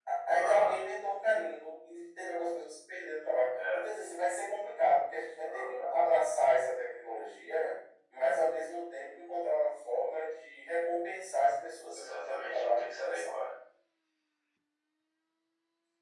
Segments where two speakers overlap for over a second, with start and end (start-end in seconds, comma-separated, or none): 11.9-13.4